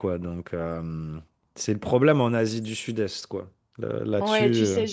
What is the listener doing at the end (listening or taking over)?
taking over